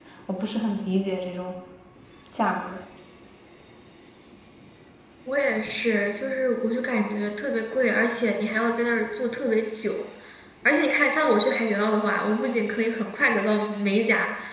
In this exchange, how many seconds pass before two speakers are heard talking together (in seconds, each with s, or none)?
none